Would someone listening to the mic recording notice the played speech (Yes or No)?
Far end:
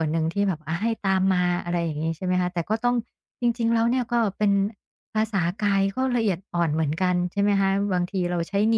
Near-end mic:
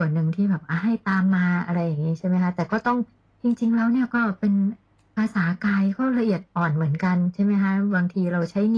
Yes